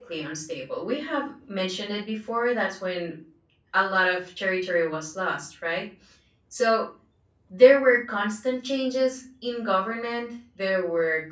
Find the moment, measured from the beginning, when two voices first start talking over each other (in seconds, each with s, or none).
none